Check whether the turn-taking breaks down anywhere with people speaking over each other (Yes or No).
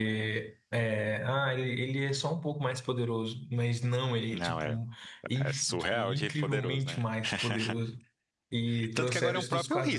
Yes